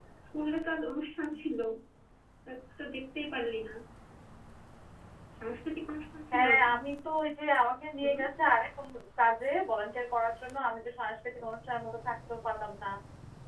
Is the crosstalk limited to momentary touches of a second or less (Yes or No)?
Yes